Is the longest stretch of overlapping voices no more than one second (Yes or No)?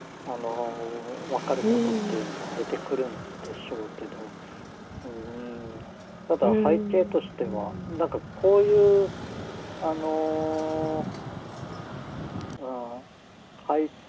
No